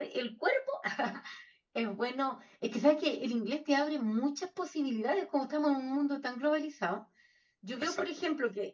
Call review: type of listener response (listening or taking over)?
listening